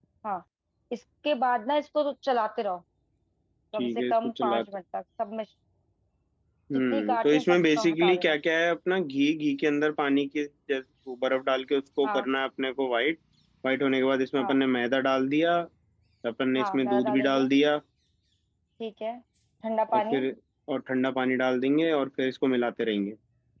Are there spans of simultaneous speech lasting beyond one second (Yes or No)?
Yes